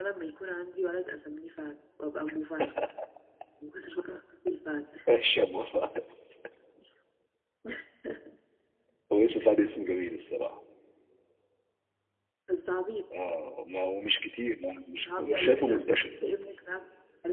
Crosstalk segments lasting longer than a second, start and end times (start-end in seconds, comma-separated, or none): 15.0-16.4